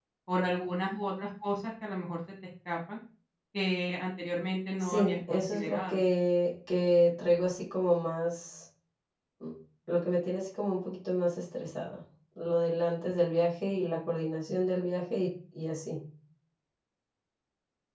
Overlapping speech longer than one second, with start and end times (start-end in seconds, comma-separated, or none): 4.8-6.0